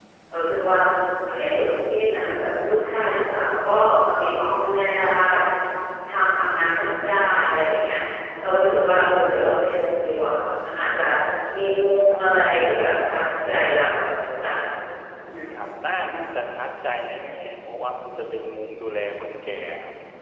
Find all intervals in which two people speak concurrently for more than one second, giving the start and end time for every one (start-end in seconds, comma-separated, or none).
none